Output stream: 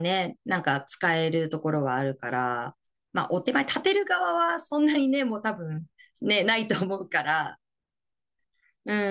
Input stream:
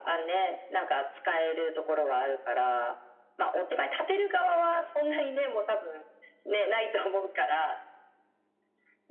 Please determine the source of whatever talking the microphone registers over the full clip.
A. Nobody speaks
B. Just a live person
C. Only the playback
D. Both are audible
C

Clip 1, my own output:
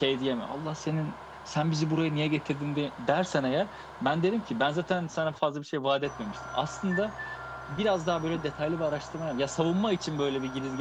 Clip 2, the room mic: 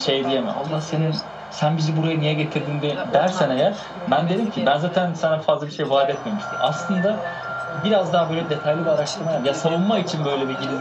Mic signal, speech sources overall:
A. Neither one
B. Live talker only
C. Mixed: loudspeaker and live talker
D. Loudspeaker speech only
C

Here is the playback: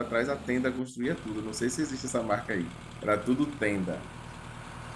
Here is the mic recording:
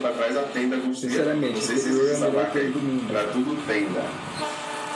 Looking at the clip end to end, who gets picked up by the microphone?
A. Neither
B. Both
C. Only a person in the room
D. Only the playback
B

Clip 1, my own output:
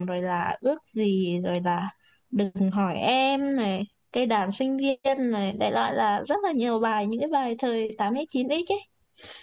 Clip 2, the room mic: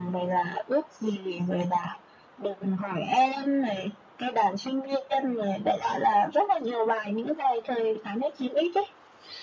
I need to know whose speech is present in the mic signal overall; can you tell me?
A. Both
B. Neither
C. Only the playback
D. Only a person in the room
C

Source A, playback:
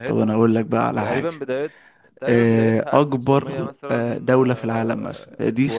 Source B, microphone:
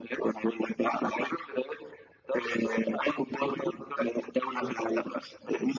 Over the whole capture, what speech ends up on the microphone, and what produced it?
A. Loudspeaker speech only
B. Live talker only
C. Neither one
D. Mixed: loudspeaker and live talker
A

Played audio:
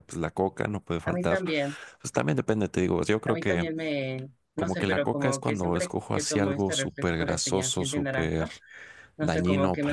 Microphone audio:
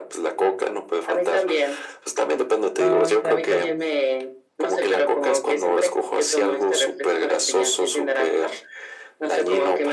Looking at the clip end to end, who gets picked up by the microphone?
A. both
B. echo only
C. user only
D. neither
A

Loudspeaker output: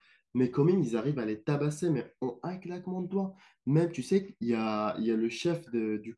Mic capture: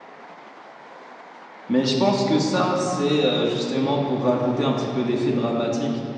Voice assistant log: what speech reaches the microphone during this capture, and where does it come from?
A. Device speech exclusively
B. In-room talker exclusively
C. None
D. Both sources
B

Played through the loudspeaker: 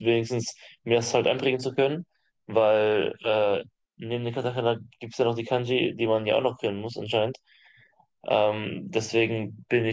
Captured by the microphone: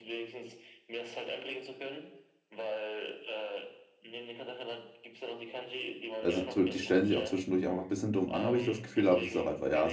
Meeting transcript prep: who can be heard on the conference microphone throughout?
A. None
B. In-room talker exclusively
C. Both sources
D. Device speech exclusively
C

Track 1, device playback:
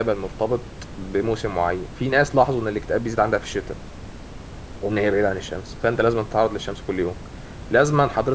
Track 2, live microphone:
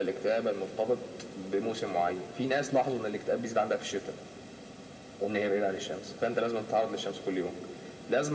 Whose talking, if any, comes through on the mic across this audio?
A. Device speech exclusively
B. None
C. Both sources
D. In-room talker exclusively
A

